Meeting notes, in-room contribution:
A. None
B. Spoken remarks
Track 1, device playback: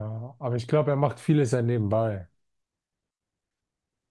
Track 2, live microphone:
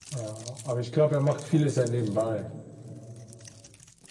A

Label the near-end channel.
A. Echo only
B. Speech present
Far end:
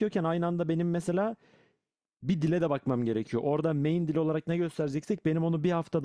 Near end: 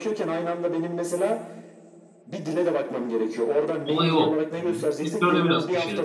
B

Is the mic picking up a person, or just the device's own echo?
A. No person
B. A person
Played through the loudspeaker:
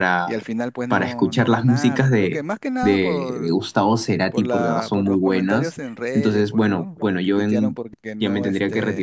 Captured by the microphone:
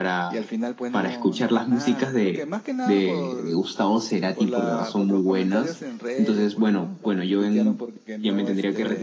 A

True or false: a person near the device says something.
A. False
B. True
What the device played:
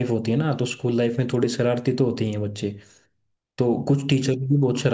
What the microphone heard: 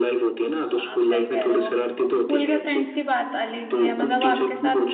B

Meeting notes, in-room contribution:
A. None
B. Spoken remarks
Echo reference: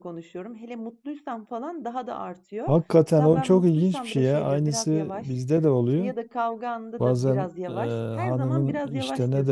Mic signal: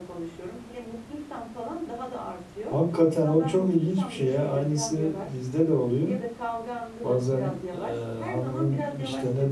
A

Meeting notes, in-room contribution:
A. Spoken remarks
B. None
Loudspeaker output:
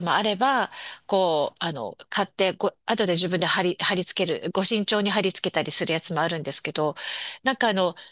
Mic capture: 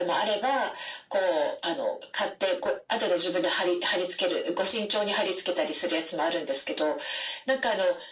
B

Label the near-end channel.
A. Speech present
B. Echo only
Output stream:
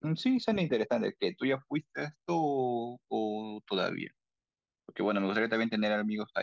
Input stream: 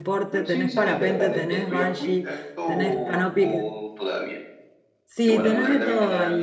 A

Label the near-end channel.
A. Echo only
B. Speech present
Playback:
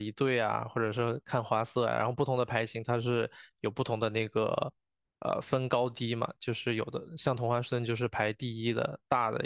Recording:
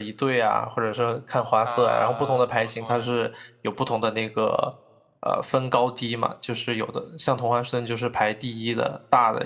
B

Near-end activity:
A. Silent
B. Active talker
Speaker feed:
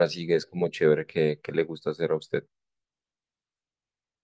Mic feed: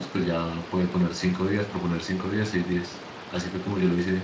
B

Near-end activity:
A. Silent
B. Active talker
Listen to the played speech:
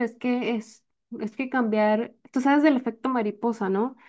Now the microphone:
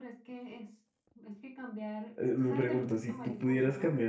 B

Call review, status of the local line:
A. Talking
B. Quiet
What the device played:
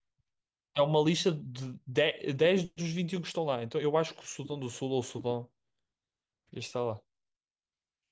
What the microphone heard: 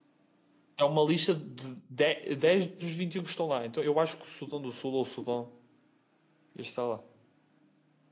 B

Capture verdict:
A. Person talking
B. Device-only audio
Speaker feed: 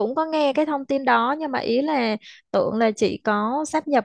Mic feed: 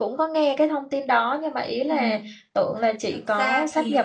A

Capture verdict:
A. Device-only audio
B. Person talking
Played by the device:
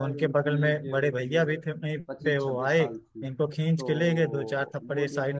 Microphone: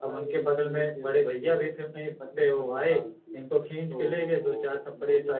A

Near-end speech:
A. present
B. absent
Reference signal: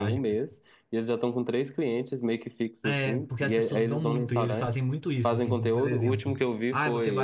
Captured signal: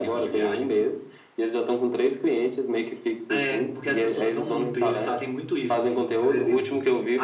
B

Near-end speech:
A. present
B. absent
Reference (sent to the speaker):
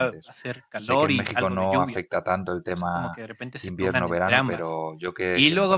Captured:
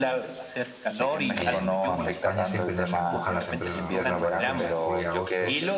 A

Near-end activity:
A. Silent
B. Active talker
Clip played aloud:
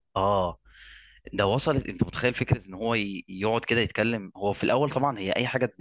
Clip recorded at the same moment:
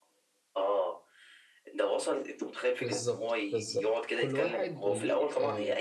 B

